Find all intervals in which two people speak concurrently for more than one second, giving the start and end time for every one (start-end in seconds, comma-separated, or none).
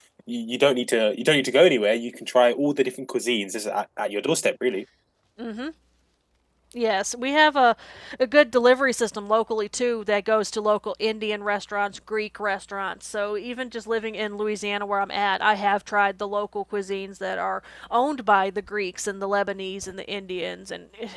none